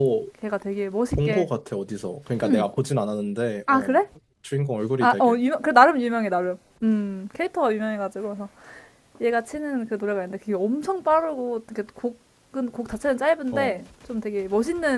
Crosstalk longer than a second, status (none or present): none